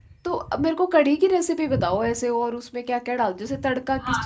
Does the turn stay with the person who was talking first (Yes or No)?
No